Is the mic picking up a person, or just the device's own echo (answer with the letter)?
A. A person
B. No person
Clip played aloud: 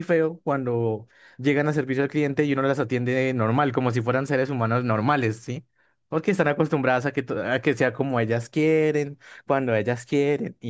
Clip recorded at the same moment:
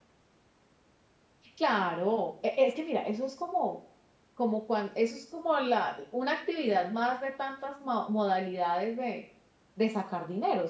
A